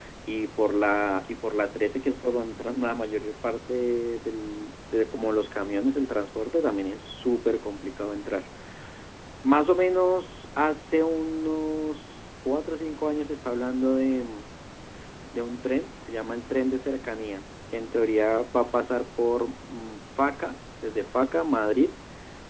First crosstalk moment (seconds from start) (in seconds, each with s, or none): none